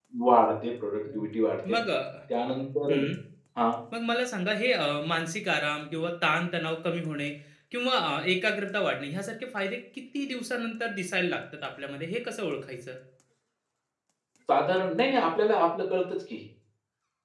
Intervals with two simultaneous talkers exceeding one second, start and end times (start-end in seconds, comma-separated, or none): none